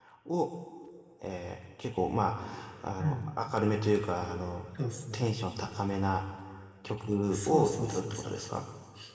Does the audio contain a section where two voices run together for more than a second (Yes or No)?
Yes